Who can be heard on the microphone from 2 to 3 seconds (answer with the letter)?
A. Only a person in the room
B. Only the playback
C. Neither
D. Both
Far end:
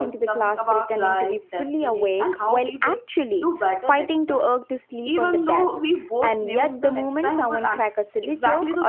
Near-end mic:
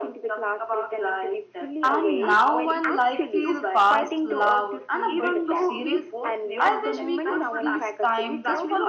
D